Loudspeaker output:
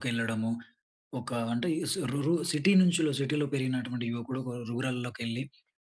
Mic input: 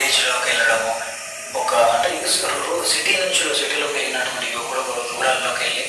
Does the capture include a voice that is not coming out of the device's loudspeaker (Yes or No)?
No